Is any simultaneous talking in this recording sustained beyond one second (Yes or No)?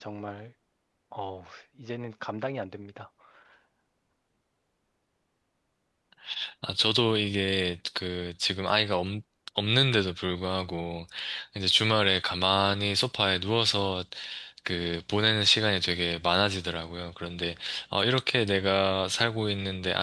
No